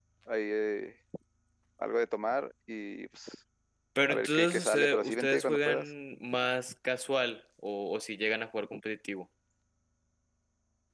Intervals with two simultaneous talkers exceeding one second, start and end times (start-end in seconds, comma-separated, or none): 4.1-5.9